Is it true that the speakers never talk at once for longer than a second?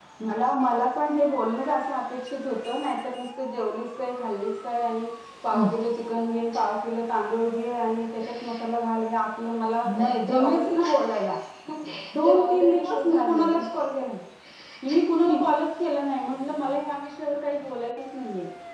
No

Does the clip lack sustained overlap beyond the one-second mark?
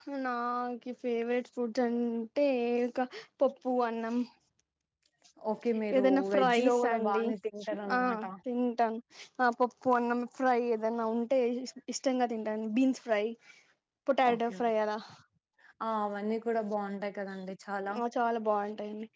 No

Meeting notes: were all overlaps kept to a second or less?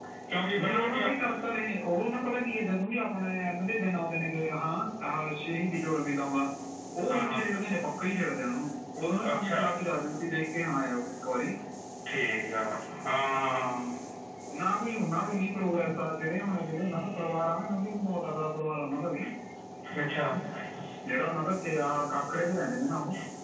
Yes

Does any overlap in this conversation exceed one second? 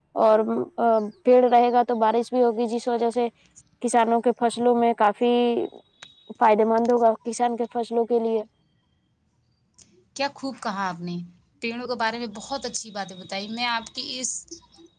No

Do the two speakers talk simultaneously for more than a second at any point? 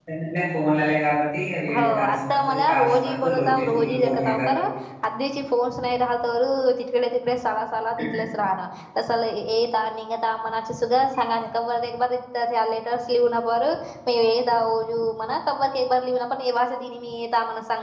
Yes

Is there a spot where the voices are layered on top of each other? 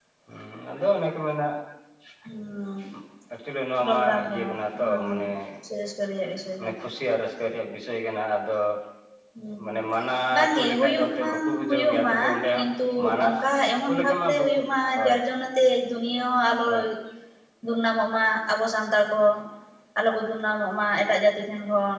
Yes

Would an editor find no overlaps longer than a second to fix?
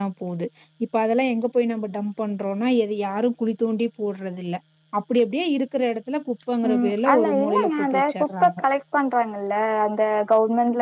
No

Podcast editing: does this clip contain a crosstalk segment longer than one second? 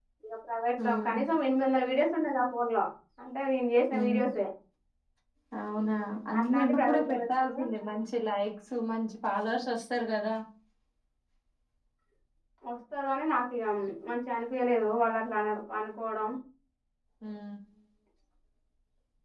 Yes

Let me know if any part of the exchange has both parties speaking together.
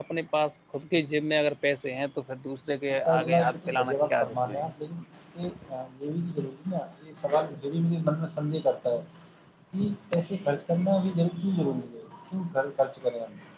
Yes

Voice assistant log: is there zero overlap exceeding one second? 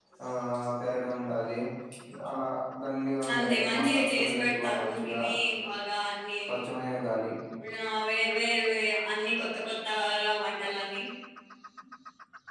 No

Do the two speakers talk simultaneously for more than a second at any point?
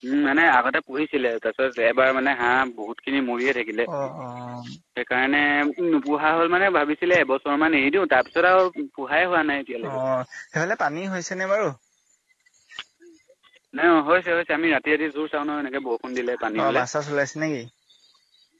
No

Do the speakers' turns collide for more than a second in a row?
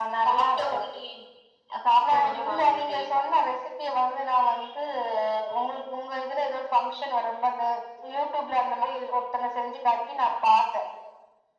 Yes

